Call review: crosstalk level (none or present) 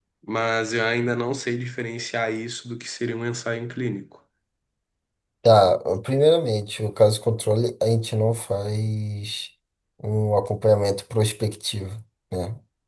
none